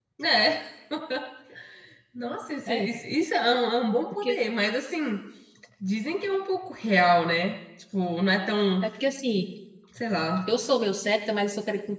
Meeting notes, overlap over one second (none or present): none